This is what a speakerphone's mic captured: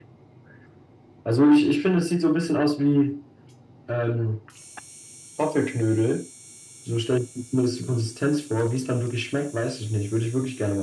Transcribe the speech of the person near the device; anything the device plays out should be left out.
none

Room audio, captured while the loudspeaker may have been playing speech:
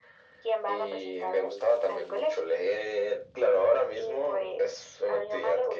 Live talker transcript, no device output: none

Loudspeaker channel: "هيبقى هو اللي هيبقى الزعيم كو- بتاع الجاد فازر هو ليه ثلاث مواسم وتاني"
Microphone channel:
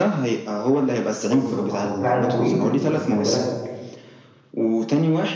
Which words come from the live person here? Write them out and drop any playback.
بص هو هو فعلا طويل بس خلي بالك

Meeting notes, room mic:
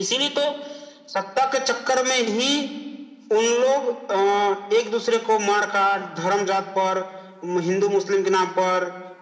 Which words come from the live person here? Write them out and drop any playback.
none

